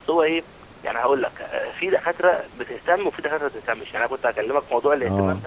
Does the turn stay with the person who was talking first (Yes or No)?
Yes